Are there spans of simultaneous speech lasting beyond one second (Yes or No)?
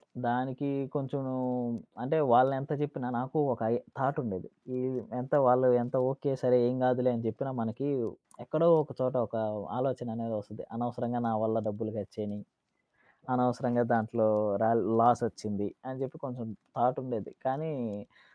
No